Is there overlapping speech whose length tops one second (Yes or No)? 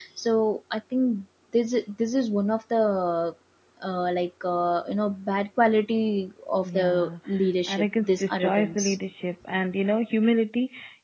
Yes